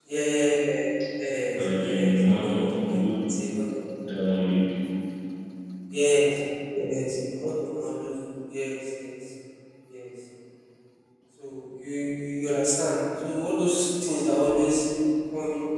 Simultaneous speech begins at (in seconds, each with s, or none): 1.6 s